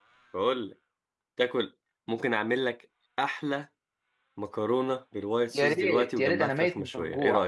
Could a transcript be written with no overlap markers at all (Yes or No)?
No